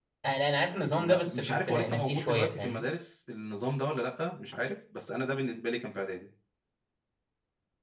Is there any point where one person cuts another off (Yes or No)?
Yes